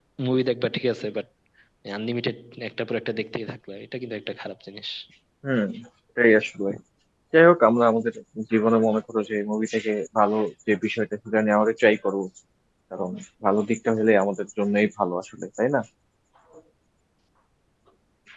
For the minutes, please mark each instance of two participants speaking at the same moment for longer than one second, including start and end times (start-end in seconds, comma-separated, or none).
none